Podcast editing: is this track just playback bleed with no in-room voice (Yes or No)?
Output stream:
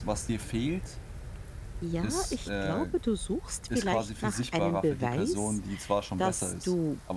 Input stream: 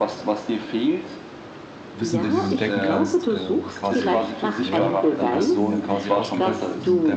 No